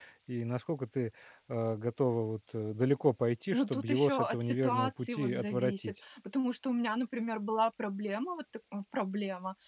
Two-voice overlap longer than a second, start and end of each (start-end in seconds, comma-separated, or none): 3.5-5.9